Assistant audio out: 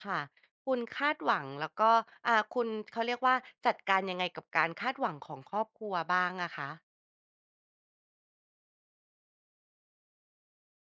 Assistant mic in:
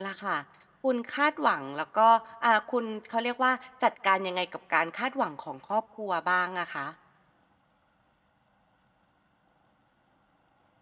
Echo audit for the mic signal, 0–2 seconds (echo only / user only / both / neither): echo only